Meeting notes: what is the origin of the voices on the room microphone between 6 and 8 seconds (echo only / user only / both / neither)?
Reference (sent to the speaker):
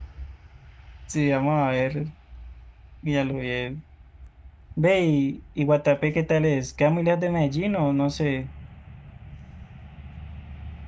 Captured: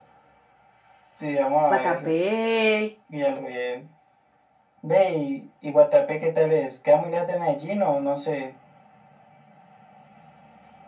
echo only